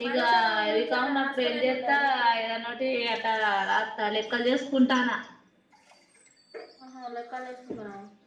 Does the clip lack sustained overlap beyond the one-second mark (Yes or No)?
No